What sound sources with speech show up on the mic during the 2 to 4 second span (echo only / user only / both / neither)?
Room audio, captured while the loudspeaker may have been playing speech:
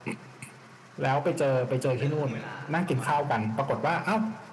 both